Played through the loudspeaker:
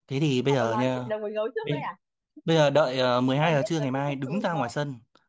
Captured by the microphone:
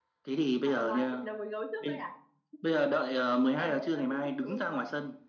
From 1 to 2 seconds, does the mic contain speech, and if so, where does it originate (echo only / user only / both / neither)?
echo only